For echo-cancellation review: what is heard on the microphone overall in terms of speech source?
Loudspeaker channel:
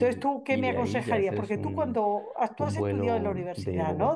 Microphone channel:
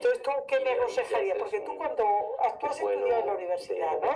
echo only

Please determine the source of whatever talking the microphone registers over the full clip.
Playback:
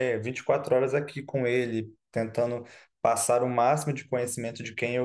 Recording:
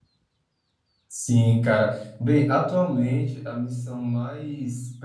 user only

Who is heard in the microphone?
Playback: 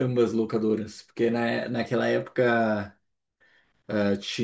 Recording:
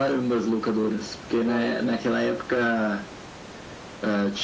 both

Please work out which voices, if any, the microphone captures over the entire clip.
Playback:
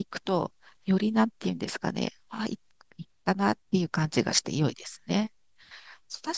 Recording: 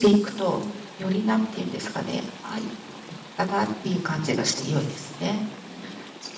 echo only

